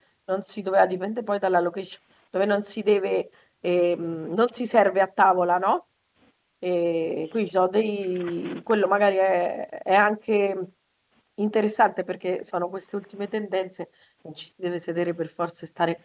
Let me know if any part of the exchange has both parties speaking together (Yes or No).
No